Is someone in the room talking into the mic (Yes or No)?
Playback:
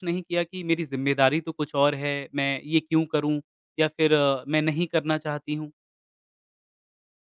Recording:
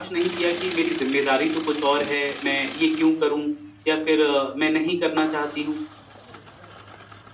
No